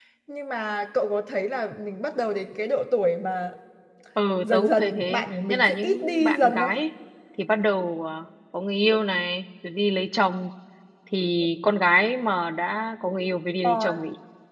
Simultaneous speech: Yes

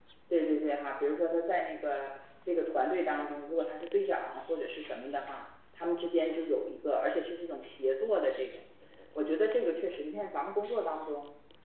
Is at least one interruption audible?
No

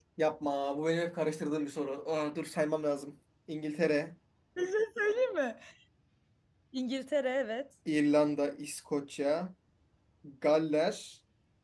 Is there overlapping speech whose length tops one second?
No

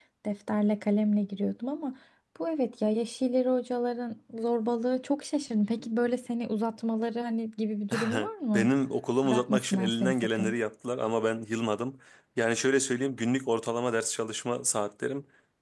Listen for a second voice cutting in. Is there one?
Yes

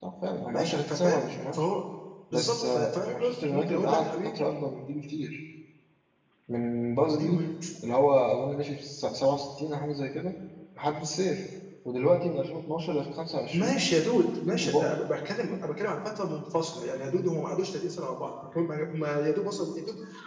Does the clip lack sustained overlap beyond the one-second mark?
No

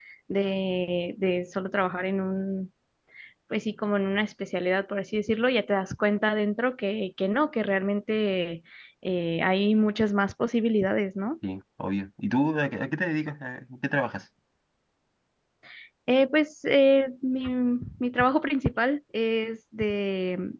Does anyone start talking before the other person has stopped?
No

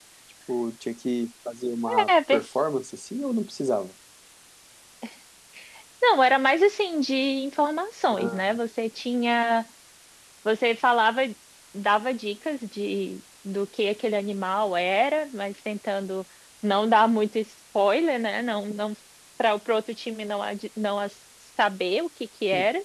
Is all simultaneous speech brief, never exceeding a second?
Yes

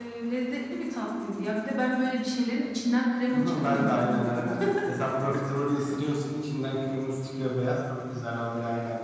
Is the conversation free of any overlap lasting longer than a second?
No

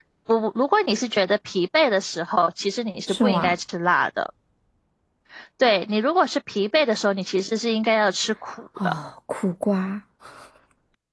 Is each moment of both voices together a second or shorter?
Yes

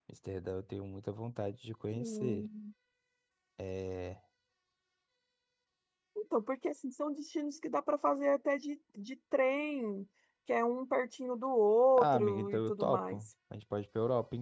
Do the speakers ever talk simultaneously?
Yes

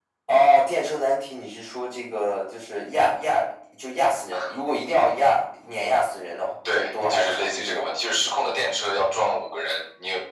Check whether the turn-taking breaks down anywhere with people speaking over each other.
Yes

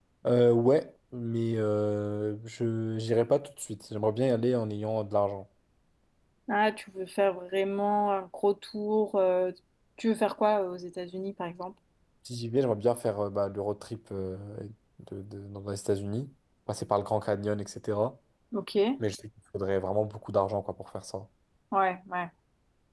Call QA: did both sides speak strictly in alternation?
Yes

